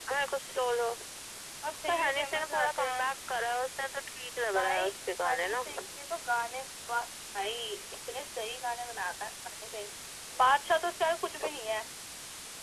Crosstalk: present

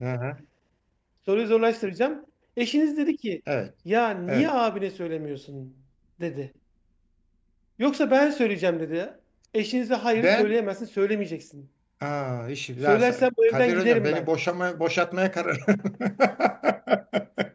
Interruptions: present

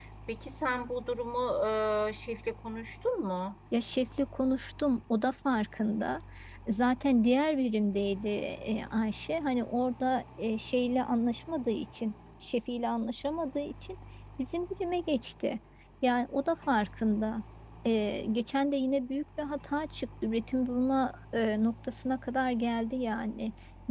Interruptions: none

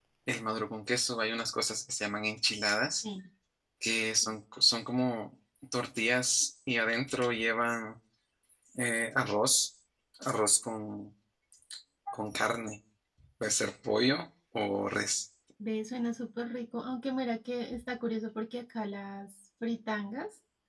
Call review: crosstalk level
none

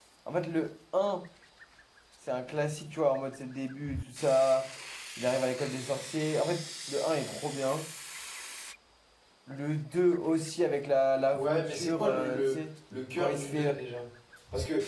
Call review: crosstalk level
present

